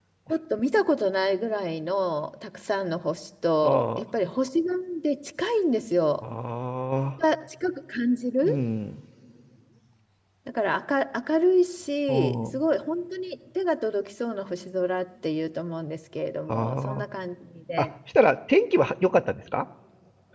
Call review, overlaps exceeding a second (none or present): none